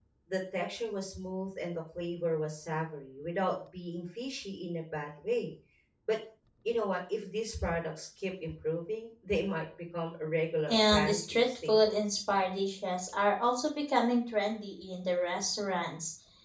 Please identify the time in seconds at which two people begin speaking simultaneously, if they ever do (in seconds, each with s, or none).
10.7 s